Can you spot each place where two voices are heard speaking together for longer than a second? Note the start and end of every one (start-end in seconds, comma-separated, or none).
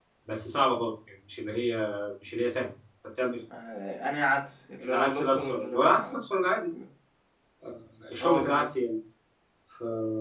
4.8-6.2